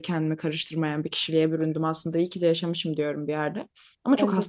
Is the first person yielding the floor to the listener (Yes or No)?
No